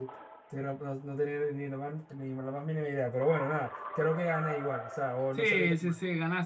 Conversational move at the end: taking over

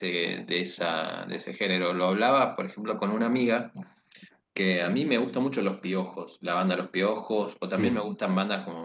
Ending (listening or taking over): listening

